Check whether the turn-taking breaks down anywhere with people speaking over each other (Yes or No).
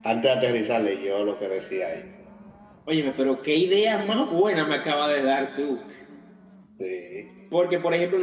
No